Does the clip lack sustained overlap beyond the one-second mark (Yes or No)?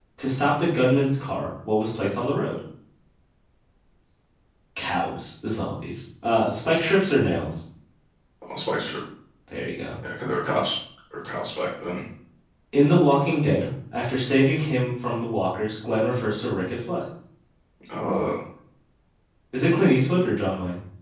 Yes